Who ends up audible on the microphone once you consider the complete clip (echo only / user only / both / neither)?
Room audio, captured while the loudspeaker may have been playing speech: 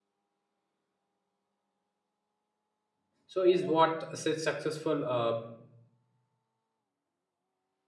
user only